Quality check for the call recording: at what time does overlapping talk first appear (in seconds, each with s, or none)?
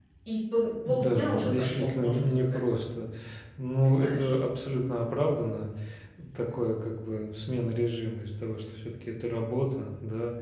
0.8 s